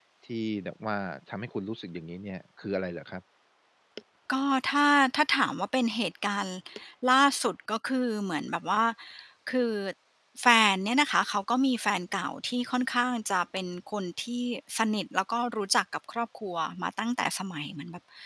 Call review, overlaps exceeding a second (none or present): none